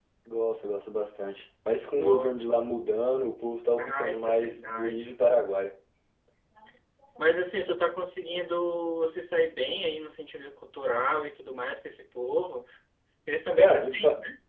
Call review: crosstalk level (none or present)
present